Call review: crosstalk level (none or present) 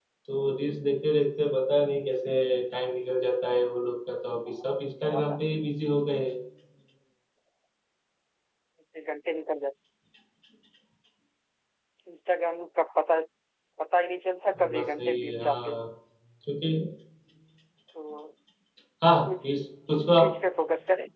present